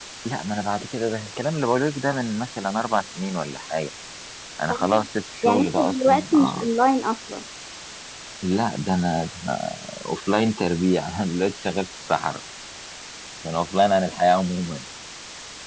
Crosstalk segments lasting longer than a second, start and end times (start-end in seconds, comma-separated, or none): 5.4-6.7